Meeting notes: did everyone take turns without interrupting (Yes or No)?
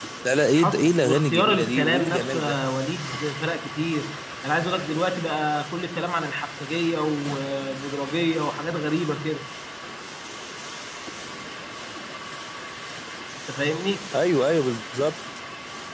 No